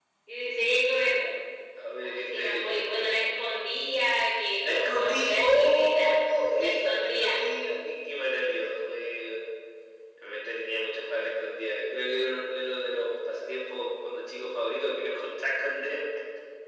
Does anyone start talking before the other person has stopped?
Yes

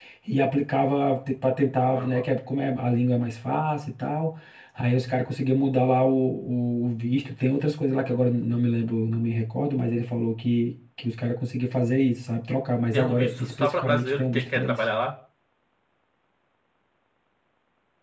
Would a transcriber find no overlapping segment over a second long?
No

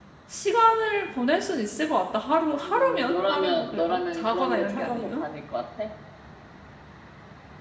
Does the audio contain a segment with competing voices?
Yes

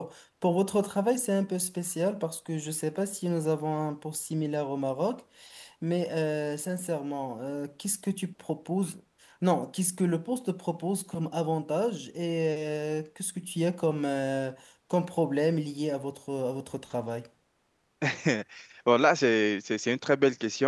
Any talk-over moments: No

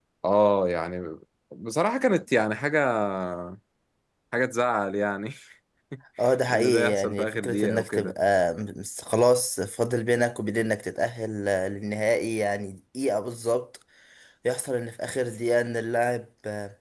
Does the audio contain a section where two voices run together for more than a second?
Yes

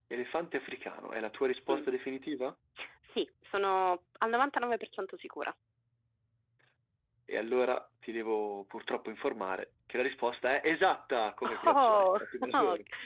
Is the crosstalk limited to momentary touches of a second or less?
No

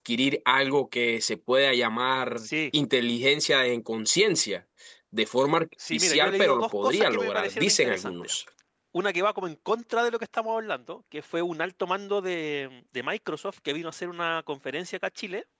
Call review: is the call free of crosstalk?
No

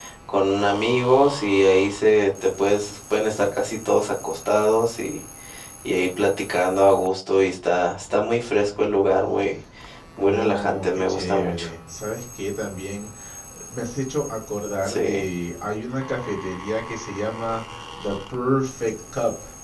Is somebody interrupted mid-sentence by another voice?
Yes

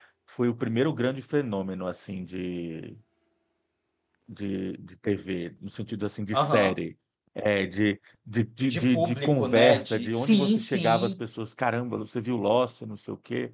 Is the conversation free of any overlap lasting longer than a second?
No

